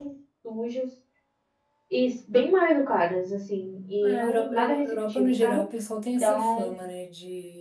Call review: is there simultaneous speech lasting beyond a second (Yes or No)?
Yes